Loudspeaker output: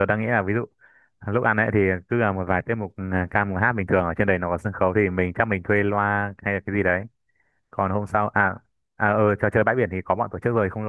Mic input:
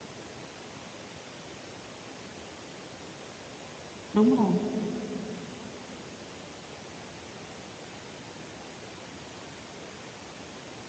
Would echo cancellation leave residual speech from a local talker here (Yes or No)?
Yes